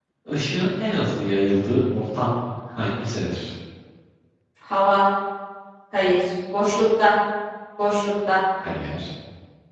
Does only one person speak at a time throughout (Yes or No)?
Yes